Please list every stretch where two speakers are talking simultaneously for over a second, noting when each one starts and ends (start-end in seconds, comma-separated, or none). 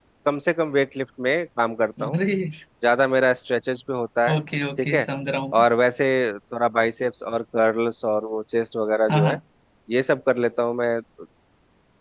none